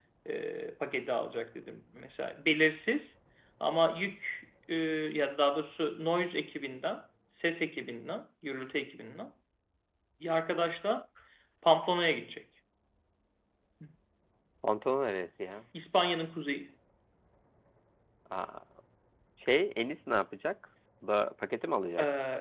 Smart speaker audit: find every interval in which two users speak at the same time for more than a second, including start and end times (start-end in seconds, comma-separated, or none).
none